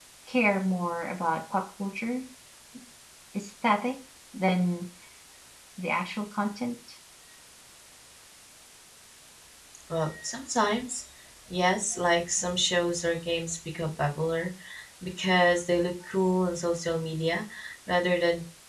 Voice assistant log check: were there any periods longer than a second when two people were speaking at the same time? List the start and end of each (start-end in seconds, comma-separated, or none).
none